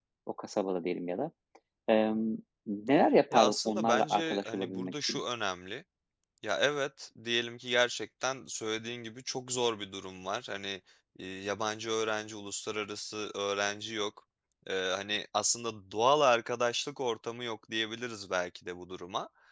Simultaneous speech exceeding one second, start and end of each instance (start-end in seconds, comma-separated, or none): 3.3-5.2